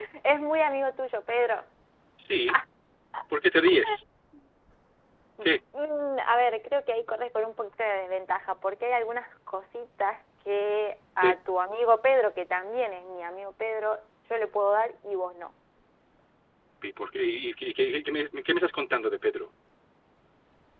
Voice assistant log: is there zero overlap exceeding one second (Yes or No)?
Yes